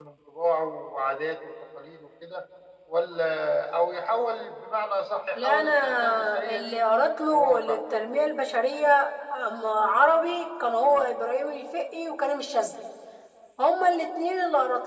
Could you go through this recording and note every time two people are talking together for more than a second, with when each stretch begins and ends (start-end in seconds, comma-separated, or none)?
5.3-6.8